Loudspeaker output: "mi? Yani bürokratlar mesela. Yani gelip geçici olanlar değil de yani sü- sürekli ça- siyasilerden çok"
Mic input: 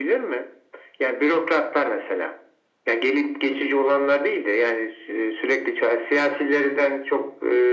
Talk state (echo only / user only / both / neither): echo only